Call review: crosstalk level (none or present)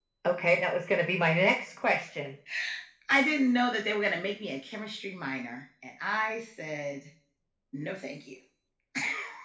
none